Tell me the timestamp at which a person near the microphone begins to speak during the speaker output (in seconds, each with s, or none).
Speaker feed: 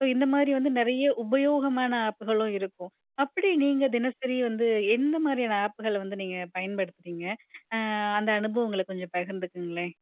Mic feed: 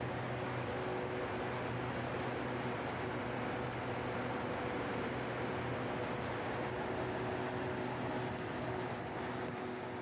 none